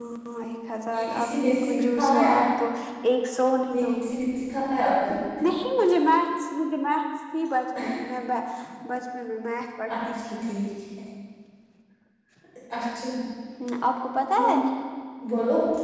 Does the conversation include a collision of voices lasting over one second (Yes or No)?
Yes